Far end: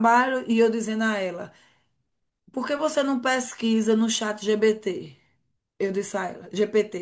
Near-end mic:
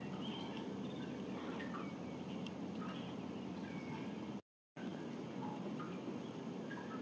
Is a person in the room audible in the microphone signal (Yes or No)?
No